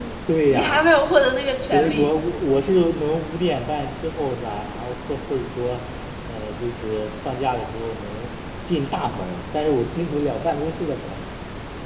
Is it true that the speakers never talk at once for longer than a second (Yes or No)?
Yes